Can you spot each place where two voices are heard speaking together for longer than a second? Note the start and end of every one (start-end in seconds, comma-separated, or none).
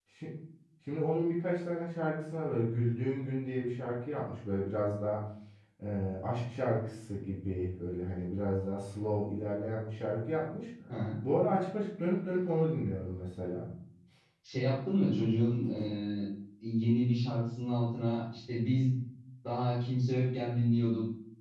none